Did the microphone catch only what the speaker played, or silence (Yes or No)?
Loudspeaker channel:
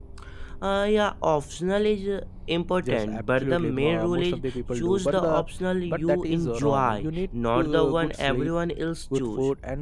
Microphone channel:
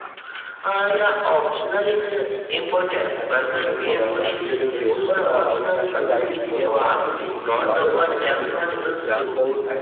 No